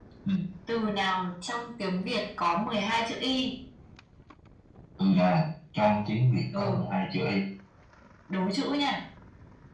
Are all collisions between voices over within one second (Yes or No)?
Yes